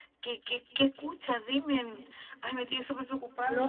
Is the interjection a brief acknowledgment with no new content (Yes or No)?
No